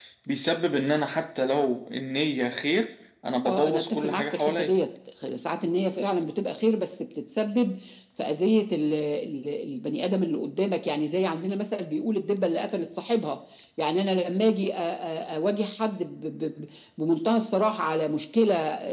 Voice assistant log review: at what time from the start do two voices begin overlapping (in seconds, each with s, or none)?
3.5 s